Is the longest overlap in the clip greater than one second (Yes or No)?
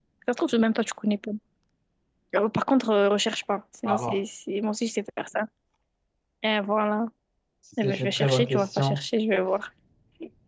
Yes